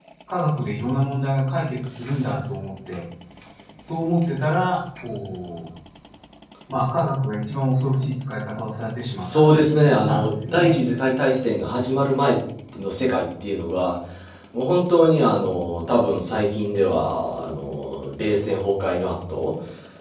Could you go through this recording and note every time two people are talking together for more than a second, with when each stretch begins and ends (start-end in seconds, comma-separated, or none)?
9.2-10.8